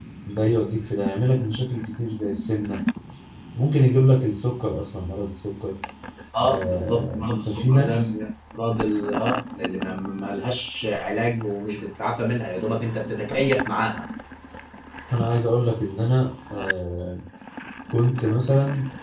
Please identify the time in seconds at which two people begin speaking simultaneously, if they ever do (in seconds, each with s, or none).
6.4 s